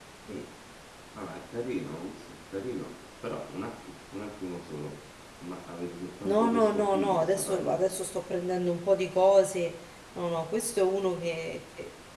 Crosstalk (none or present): present